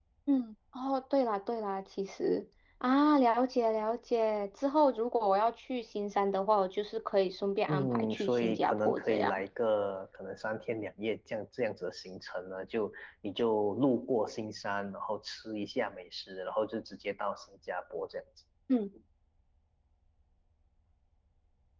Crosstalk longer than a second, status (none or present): present